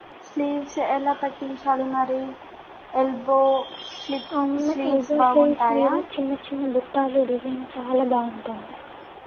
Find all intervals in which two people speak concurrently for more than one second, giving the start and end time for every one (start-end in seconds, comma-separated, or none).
4.7-5.9